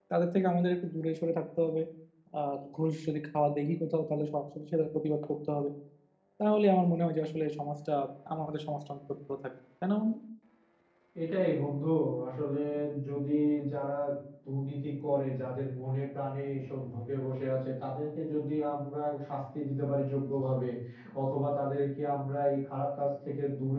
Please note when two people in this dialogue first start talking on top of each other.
none

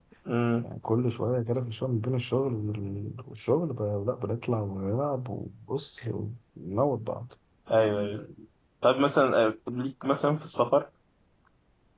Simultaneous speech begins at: none

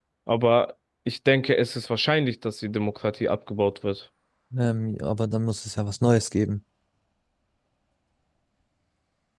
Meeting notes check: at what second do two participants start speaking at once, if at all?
none

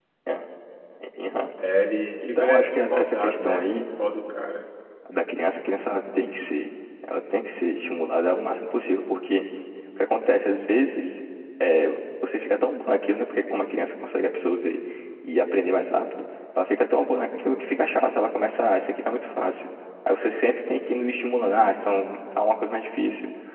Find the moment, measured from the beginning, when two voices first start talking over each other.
2 s

